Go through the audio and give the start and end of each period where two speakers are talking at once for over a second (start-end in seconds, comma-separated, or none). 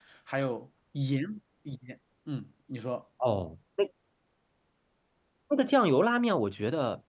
none